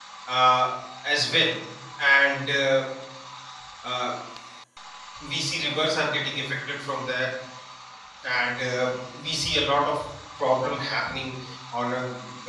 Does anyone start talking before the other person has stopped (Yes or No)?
No